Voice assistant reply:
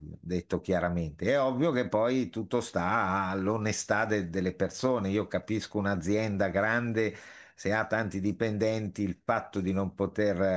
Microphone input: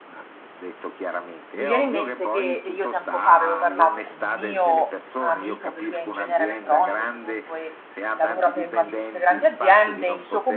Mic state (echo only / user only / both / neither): both